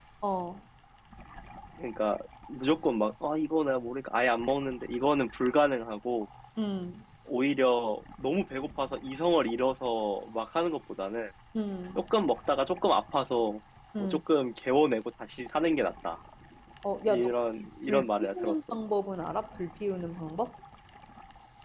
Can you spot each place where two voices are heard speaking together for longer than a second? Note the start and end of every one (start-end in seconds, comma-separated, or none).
17.0-18.5